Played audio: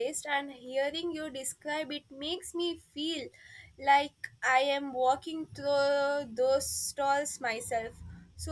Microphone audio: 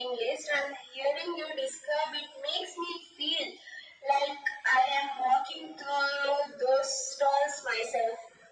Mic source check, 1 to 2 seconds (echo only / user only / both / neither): echo only